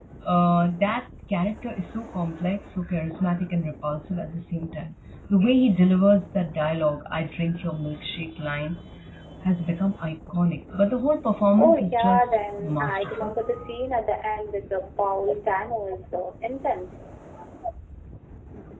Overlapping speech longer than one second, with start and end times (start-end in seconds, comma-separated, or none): 11.6-13.3